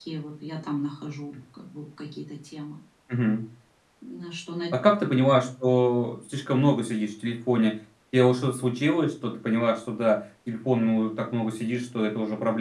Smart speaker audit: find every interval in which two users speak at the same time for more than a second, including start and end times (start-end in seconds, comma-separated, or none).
none